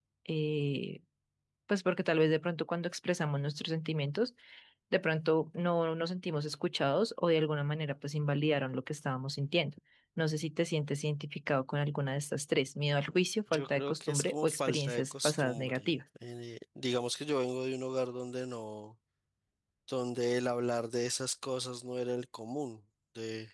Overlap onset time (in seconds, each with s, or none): 13.5 s